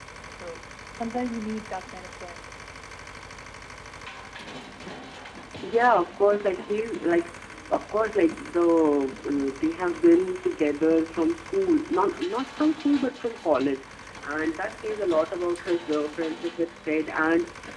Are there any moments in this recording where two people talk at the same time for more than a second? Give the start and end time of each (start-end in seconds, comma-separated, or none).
none